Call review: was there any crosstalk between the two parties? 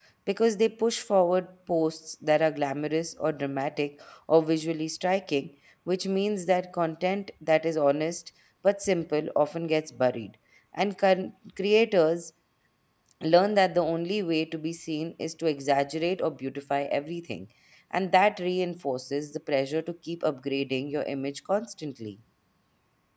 No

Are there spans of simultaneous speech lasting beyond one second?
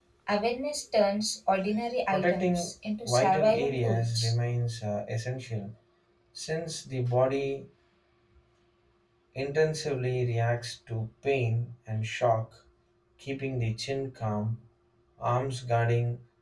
Yes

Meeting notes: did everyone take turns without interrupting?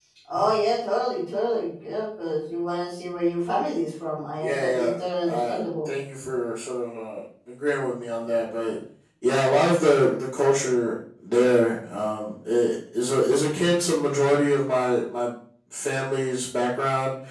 No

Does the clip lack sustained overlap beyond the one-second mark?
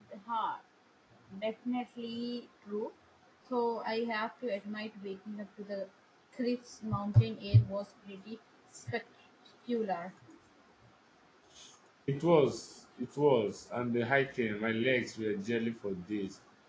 Yes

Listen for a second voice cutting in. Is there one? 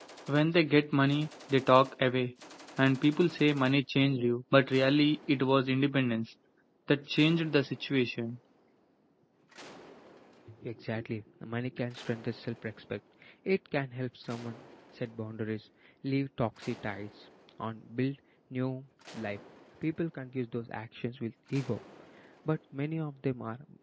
No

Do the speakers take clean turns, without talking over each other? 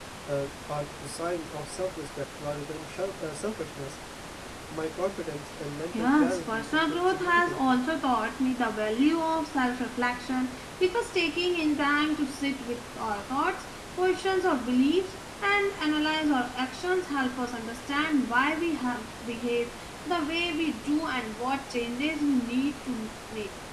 No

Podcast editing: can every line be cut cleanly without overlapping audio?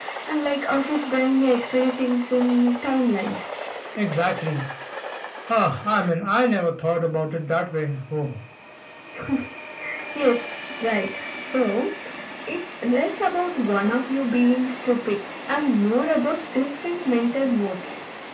Yes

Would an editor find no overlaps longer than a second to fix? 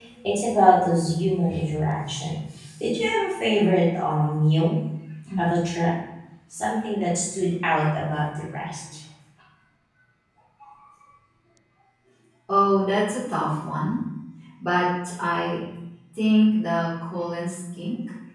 Yes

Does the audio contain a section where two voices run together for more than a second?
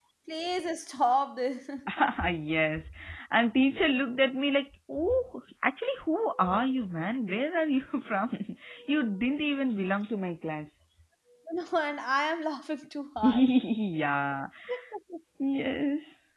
No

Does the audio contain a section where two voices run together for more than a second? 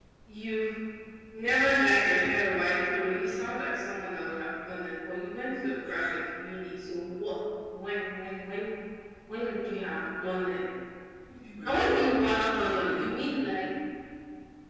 Yes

